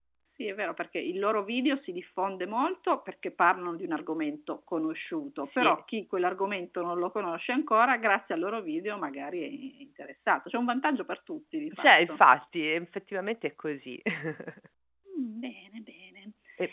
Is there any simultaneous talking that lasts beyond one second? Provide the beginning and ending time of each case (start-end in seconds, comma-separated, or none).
none